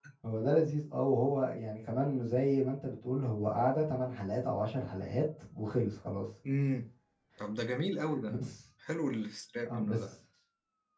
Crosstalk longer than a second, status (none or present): none